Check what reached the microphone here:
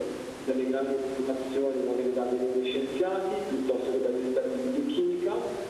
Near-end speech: none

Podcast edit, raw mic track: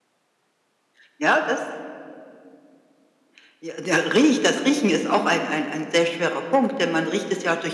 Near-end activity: none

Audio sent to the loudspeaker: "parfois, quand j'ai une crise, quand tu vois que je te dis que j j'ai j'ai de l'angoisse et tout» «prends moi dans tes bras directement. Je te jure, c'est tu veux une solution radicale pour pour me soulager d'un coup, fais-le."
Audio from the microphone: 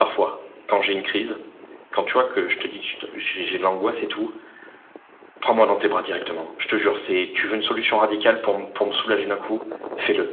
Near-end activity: none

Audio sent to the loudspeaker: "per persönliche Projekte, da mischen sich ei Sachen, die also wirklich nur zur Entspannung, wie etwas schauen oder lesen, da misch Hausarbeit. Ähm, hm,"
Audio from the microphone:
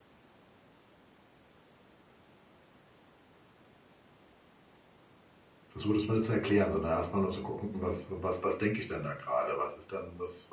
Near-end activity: present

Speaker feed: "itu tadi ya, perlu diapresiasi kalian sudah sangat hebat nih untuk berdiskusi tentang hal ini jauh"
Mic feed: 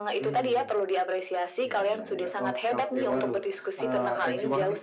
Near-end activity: present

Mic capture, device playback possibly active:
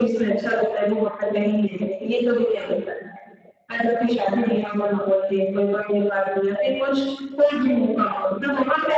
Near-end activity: none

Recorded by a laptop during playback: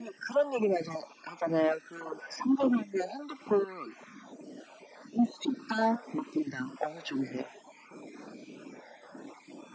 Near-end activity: none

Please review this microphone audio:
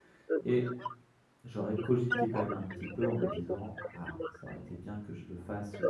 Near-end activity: present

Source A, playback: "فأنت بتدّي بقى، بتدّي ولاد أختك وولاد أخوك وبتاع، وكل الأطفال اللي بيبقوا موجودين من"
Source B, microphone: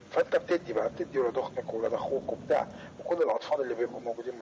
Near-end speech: none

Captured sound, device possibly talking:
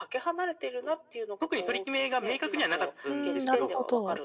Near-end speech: present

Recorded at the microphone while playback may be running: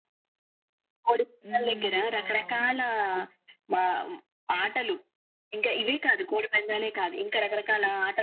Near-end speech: present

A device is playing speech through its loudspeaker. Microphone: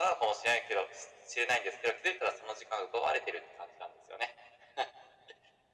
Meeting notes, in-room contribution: none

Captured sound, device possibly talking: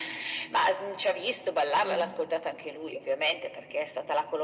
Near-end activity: present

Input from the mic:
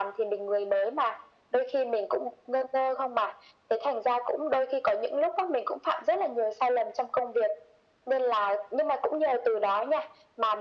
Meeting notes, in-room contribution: none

